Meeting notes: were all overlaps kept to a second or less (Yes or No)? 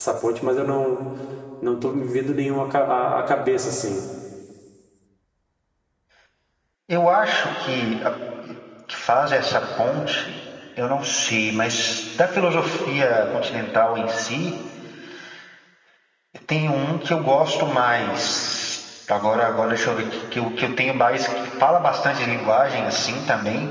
Yes